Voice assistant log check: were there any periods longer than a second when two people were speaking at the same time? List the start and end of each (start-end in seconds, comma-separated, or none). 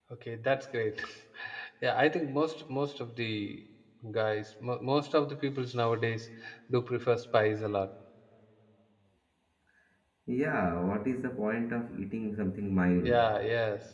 none